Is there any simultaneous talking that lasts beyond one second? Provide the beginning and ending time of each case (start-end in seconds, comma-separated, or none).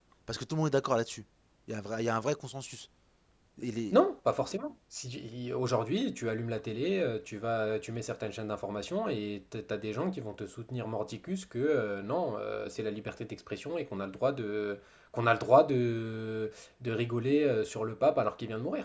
none